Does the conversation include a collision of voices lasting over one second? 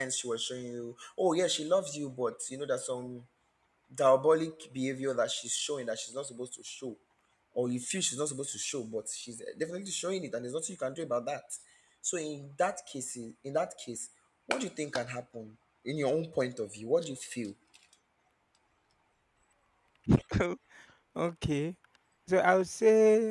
No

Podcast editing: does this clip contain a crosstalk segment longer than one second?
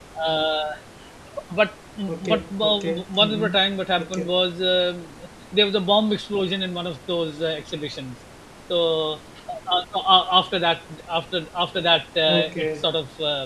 Yes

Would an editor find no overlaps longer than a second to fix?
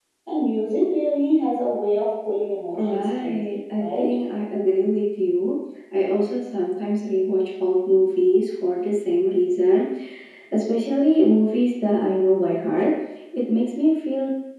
No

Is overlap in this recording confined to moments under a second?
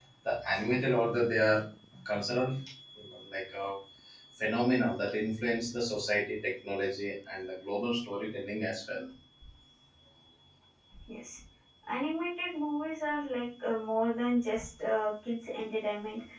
Yes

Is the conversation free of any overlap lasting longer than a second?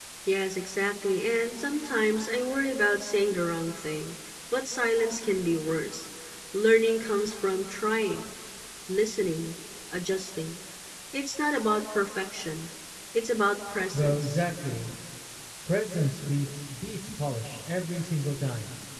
Yes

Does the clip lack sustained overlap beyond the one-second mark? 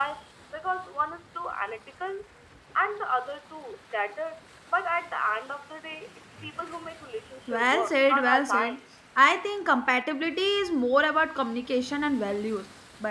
No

